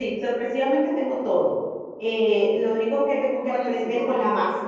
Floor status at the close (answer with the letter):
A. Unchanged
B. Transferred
A